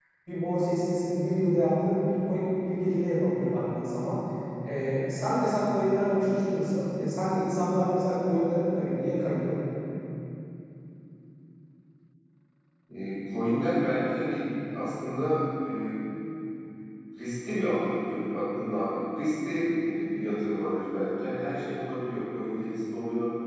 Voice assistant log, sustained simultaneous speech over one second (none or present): none